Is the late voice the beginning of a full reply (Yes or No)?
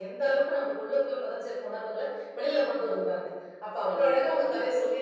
No